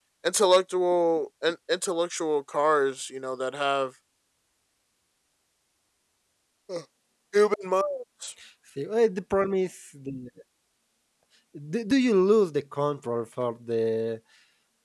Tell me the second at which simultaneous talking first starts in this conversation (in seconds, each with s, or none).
none